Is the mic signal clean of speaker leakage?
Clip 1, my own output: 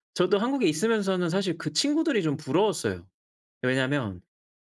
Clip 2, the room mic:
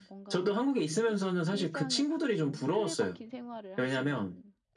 No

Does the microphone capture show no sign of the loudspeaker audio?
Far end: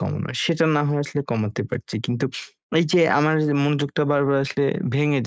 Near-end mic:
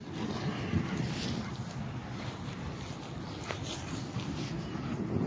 Yes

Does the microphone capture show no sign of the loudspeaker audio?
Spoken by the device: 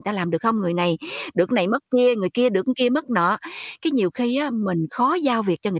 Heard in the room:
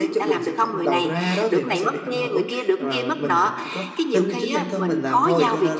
No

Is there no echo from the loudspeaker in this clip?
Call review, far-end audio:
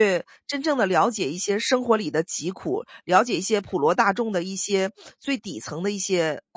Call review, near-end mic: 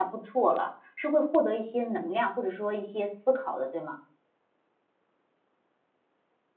Yes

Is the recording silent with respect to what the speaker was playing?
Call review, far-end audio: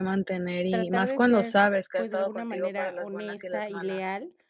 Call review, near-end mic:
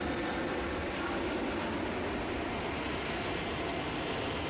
Yes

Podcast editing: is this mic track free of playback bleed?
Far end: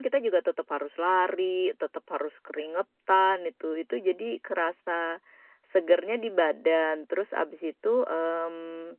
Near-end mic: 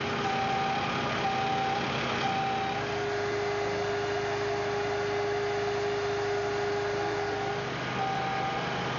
Yes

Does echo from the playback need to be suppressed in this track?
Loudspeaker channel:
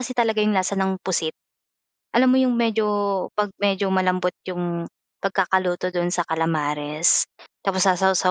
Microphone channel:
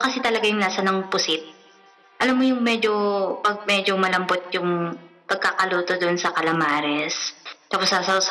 Yes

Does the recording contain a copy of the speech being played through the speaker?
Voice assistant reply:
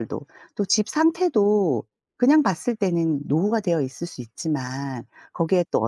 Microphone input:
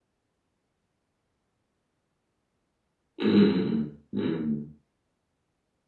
No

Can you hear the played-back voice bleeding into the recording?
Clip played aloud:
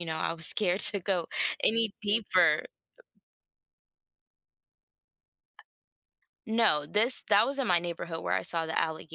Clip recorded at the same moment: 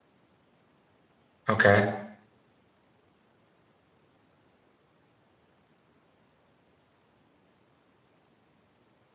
No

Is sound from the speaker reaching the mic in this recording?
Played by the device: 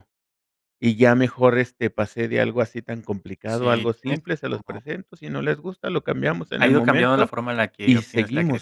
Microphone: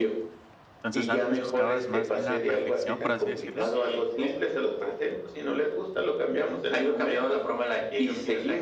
Yes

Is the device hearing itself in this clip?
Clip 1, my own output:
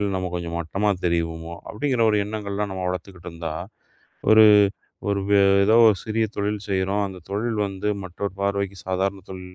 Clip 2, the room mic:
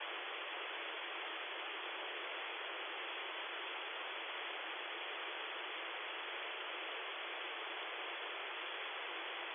No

